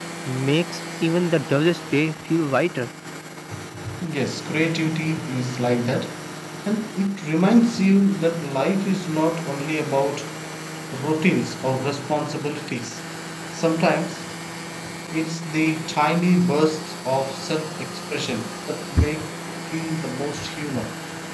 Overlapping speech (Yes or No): No